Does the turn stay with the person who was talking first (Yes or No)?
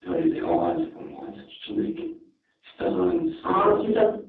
No